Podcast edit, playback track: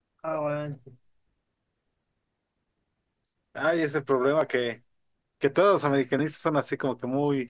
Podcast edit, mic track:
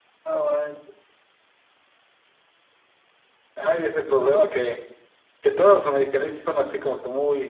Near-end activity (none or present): none